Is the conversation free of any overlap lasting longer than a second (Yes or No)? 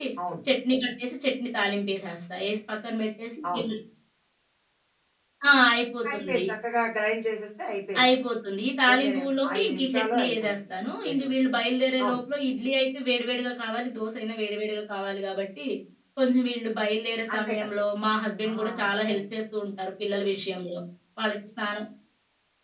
No